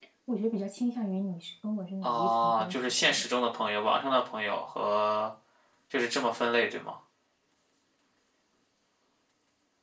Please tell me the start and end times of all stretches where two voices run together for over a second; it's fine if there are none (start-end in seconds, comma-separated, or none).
2.0-3.2